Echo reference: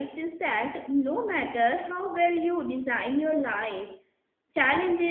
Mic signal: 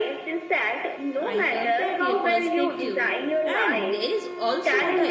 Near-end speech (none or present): present